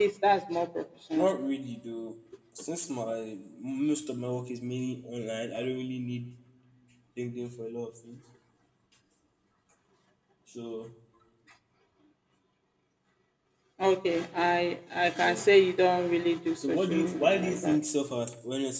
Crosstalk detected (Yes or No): Yes